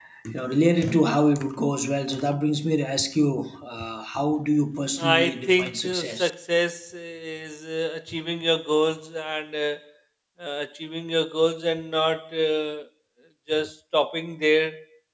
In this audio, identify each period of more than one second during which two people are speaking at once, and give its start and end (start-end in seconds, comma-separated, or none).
5.0-6.3